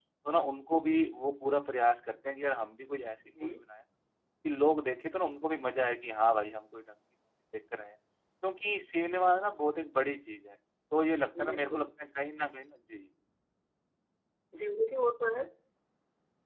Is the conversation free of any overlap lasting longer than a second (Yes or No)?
Yes